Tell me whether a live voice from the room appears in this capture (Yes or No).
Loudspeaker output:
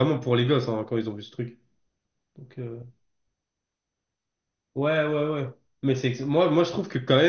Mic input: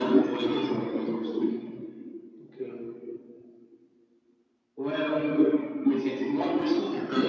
No